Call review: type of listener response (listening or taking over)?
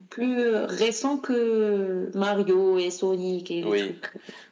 taking over